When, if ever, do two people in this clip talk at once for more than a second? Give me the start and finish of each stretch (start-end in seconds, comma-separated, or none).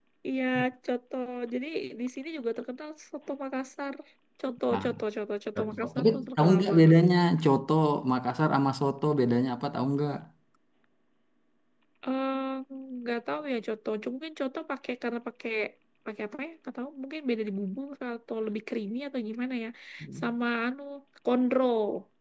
5.6-7.0